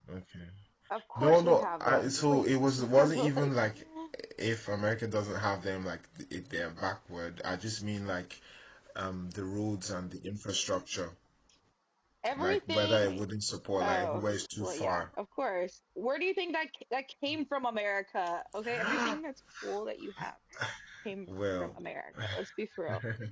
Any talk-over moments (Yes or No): Yes